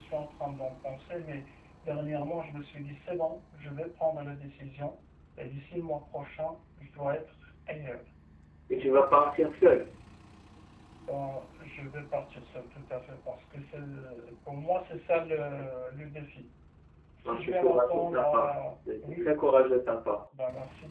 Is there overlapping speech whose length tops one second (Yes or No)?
Yes